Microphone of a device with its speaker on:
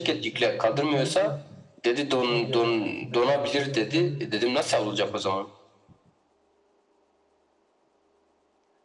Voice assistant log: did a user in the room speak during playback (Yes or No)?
Yes